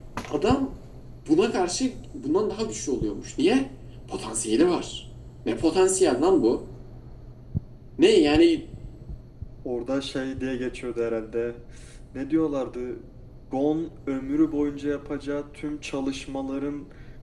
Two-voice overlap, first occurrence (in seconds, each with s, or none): none